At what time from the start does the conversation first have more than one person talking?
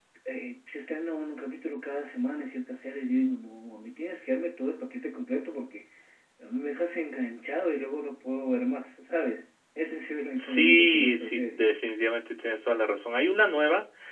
10.4 s

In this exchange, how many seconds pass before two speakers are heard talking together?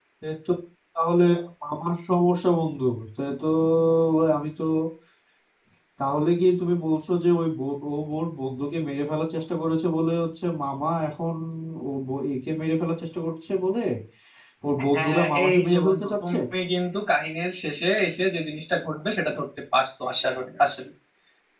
14.9 s

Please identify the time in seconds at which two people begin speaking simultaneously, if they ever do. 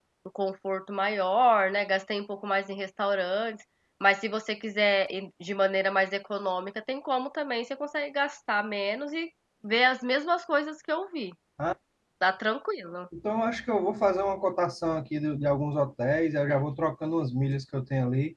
none

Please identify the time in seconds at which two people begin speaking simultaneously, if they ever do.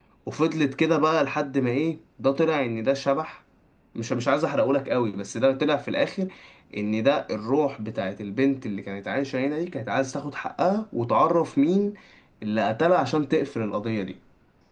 none

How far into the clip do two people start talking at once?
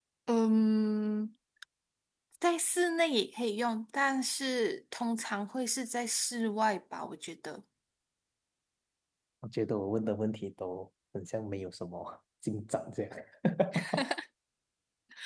none

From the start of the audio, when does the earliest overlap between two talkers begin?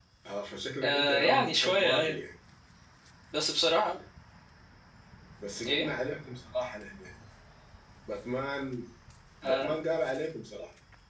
0.8 s

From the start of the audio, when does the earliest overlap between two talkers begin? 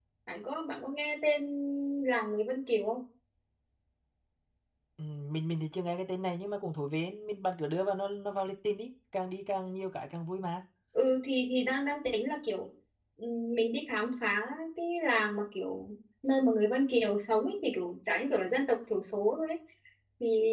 none

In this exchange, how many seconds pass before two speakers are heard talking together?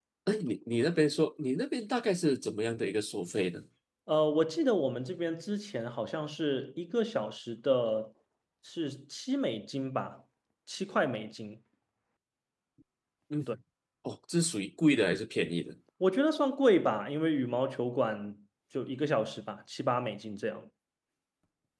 none

